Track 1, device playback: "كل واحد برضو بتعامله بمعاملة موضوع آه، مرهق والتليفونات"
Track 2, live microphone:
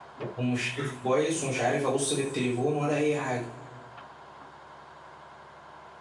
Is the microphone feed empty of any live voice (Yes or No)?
No